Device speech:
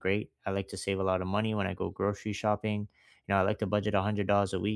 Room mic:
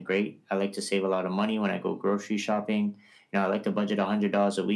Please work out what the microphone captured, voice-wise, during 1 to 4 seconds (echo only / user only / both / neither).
echo only